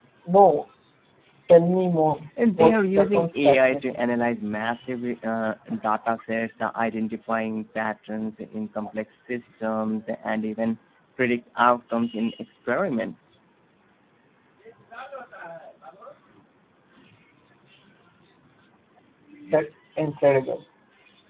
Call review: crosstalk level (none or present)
present